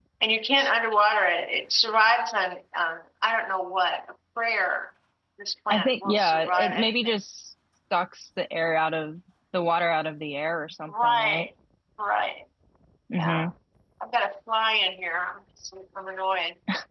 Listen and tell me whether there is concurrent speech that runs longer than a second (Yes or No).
Yes